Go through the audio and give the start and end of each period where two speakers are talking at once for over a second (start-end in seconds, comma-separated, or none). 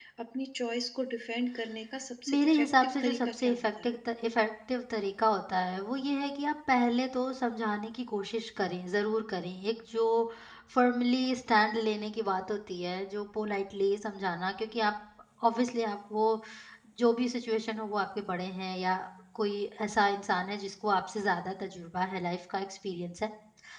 2.3-3.9